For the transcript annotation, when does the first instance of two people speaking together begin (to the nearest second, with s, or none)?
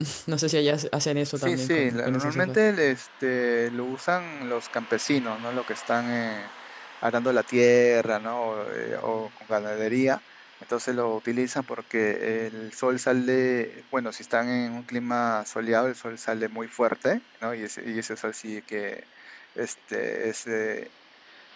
1 s